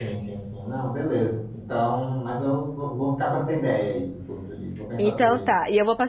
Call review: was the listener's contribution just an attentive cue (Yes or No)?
No